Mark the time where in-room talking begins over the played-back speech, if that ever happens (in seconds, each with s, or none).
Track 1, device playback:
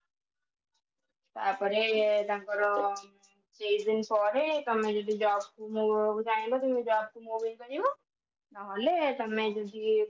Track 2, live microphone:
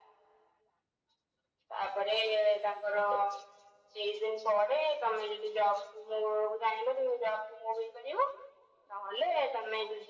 none